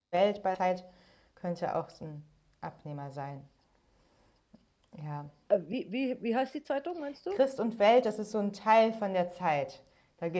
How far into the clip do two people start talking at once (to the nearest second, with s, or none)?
none